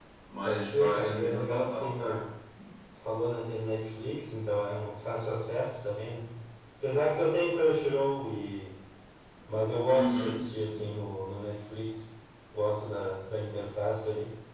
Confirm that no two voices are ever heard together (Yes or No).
No